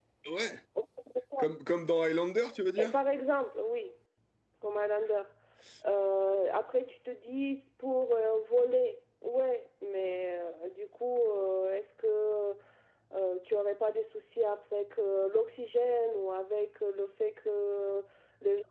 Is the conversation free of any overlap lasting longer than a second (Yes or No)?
Yes